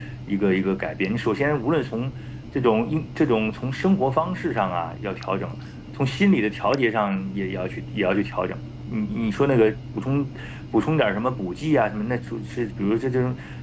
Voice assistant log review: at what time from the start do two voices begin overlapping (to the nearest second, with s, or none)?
none